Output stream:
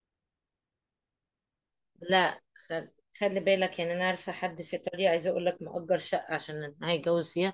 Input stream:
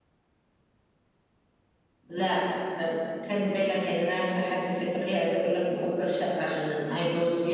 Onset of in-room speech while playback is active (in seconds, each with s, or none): none